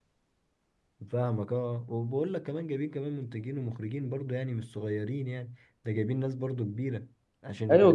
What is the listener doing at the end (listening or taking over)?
taking over